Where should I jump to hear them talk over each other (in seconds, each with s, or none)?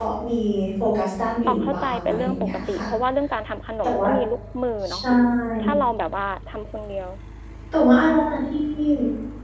1.5 s